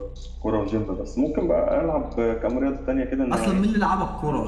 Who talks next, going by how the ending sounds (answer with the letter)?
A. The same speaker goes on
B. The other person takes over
B